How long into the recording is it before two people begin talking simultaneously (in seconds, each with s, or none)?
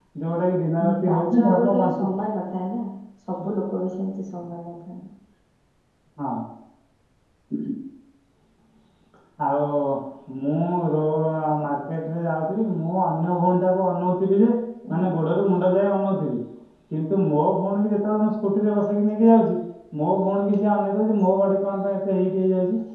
0.9 s